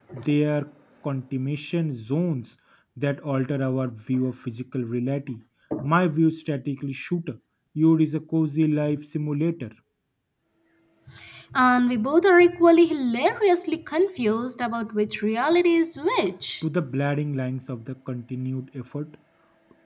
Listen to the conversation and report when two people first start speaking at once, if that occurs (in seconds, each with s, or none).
none